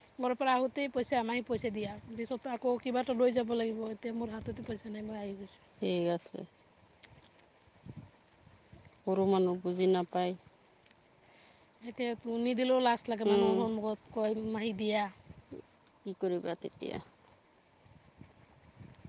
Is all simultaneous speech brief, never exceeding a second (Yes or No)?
Yes